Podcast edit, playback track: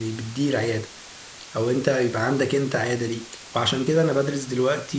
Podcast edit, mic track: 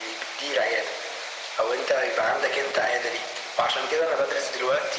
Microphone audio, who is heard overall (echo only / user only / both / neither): echo only